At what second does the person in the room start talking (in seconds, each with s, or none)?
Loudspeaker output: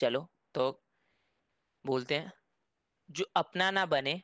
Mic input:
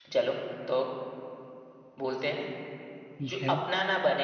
3.2 s